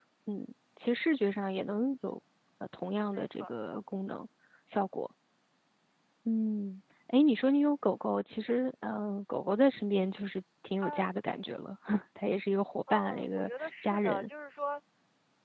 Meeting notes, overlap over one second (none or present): present